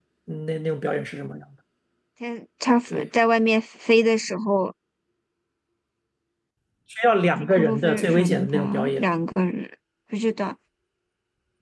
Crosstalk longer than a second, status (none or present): present